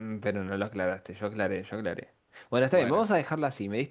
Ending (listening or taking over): listening